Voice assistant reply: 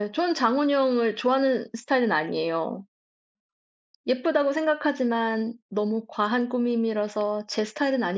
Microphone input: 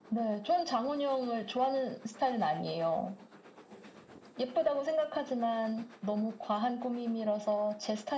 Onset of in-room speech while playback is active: none

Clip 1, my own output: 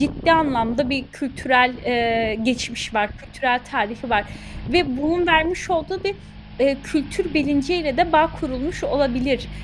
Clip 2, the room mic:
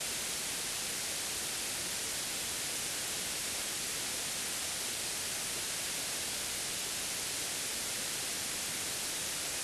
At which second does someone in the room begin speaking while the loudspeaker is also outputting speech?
none

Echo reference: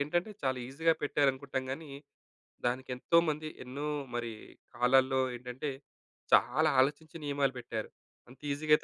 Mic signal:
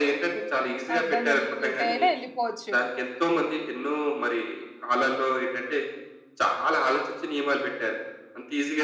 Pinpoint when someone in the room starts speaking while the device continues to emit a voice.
0.9 s

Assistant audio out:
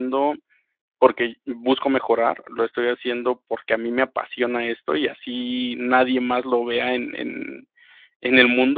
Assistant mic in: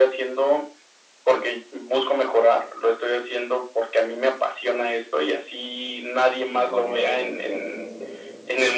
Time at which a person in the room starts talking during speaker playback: 6.5 s

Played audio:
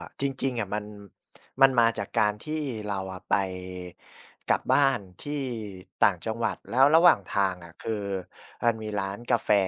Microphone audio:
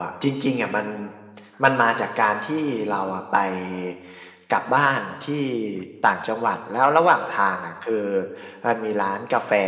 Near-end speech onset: none

